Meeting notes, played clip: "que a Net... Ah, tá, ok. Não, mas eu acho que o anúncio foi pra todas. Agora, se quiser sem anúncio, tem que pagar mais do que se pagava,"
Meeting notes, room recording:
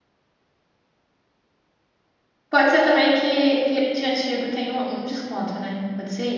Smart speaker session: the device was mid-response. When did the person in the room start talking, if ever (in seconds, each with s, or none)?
2.5 s